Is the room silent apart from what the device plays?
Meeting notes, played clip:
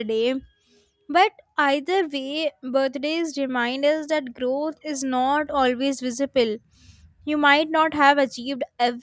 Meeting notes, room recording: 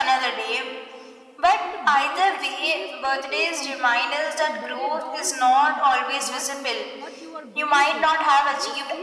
No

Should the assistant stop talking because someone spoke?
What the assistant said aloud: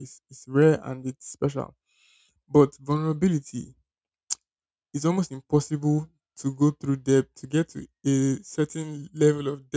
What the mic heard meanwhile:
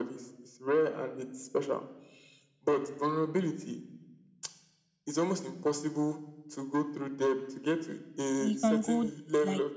Yes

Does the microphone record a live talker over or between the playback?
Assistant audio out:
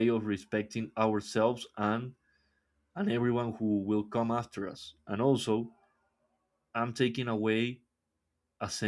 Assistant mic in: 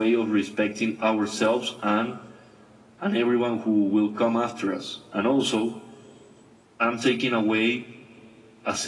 No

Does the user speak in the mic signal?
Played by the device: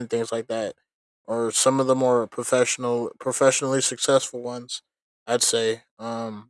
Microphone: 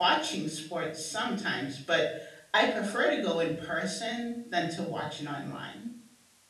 Yes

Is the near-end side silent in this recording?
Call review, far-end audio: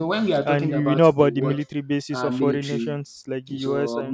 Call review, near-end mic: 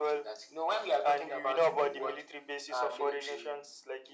Yes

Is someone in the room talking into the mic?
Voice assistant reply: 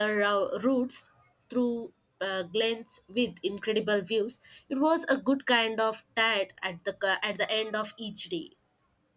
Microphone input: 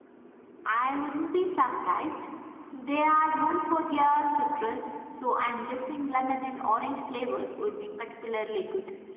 Yes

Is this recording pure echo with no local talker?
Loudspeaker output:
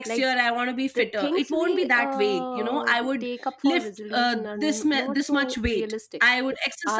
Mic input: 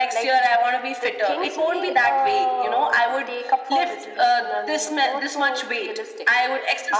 Yes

